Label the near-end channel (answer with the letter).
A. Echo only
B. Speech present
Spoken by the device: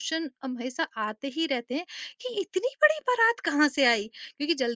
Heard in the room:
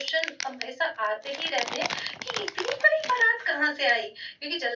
A